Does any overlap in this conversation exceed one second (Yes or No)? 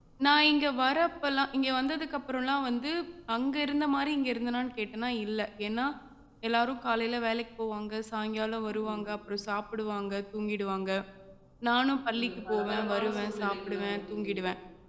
Yes